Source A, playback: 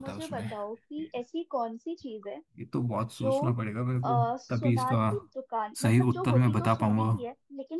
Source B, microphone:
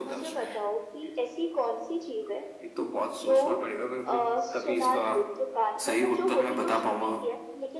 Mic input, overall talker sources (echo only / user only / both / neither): echo only